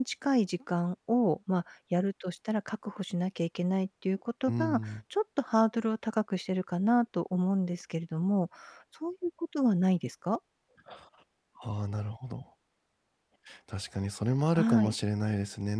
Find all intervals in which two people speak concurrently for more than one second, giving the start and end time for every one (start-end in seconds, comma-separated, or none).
none